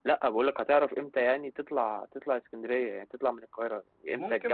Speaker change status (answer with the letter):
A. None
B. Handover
B